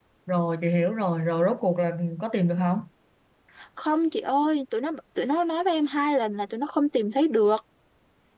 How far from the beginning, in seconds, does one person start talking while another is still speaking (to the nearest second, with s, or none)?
none